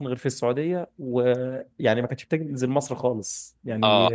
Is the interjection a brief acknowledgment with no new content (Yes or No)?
No